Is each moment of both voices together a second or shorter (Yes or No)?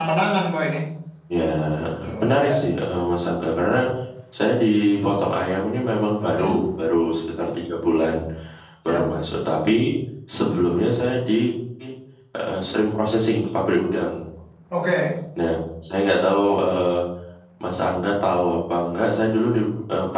Yes